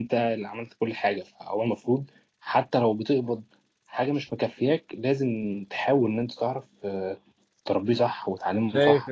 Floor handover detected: Yes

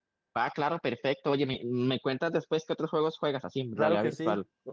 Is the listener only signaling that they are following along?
No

